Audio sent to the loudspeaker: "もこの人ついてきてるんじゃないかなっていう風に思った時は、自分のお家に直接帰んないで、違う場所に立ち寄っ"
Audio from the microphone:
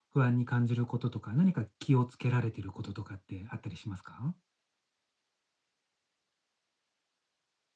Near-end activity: present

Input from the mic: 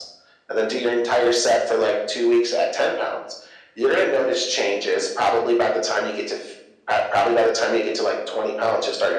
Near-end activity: none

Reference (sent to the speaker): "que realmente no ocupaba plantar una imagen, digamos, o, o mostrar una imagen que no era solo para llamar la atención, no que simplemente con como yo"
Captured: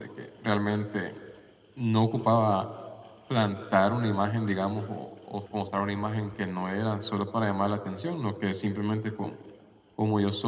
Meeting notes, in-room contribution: none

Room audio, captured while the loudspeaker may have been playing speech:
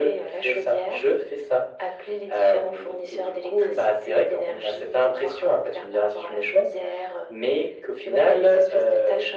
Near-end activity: none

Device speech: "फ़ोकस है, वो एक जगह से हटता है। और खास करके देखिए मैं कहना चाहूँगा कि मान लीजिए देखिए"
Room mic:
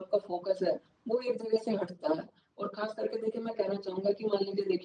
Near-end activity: none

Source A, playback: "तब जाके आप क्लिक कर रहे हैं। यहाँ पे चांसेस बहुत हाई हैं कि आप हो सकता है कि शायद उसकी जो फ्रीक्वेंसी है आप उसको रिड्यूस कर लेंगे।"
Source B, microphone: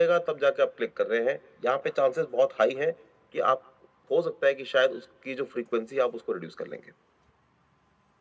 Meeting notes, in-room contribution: none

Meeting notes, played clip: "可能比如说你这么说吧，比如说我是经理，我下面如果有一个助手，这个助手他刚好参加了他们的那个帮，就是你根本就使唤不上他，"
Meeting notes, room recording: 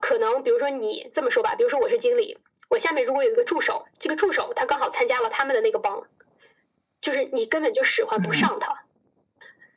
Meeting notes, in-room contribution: present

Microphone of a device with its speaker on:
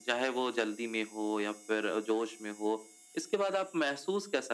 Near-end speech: none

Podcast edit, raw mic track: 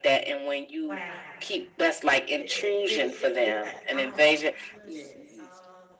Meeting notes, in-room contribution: present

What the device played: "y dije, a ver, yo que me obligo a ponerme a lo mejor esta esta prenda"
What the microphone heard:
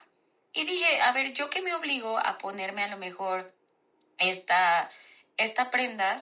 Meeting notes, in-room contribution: none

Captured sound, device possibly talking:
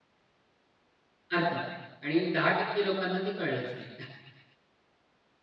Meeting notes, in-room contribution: present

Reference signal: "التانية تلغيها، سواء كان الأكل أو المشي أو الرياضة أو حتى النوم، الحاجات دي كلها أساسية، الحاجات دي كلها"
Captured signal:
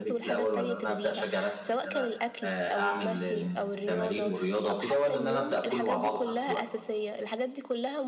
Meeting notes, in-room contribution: present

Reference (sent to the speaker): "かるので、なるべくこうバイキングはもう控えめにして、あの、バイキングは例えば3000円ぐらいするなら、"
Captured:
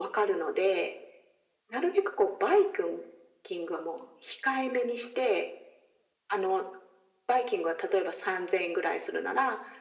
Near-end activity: none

